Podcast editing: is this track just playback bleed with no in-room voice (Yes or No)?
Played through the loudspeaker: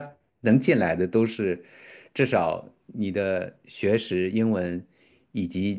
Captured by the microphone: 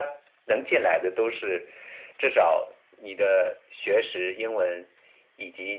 Yes